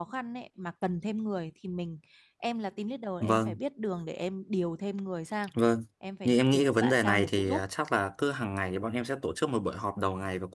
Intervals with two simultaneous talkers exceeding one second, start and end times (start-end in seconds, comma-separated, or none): 6.2-7.6